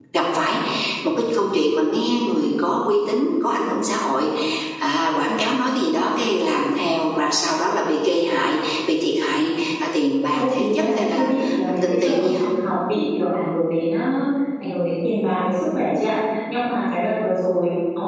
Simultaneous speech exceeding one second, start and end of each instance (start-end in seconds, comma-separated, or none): 10.3-12.6